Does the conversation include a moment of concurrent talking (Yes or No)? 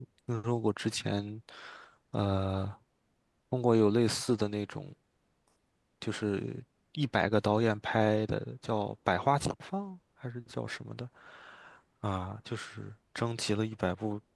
No